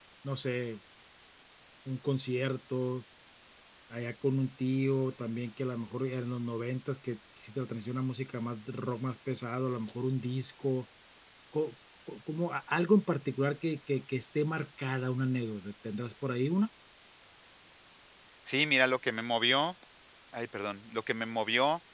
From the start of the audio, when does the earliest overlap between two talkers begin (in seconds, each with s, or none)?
none